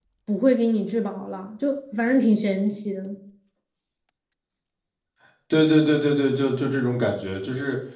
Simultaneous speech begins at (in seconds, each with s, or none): none